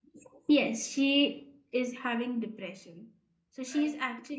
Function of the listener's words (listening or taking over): listening